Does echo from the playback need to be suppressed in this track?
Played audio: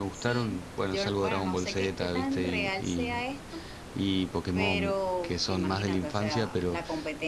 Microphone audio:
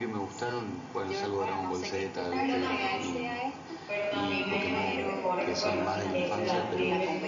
Yes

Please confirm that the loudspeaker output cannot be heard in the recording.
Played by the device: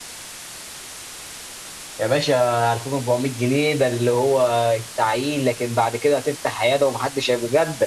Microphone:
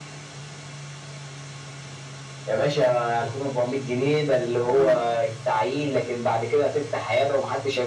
No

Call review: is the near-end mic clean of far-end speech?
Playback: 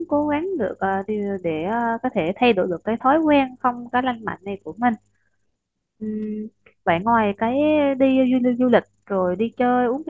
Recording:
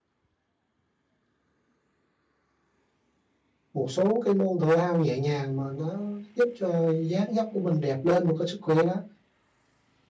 Yes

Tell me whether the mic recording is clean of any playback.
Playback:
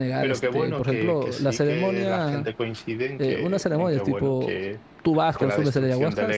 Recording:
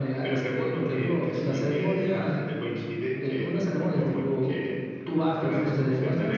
No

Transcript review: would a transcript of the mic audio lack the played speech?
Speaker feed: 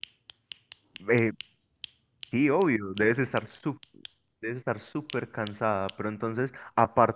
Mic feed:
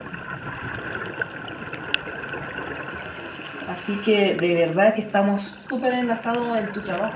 Yes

